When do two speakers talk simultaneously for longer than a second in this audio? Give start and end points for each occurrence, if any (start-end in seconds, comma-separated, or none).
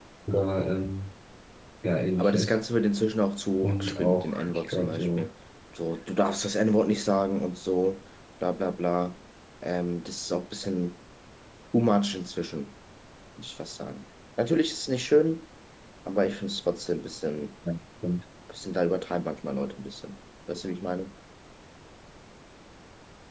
3.6-5.3